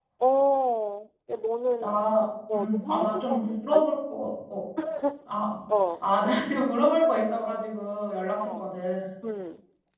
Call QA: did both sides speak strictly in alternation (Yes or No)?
No